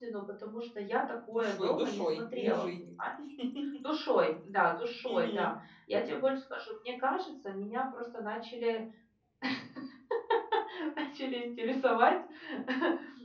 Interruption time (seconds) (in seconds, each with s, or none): 1.3 s